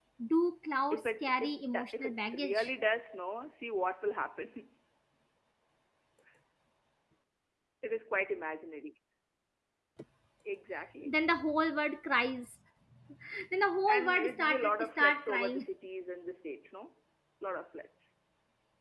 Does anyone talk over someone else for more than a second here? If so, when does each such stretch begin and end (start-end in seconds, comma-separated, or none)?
0.9-2.7, 13.9-15.7